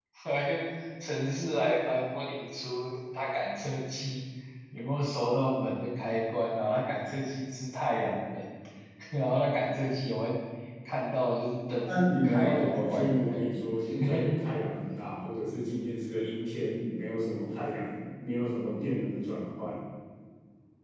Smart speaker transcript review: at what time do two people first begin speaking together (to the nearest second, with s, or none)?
12 s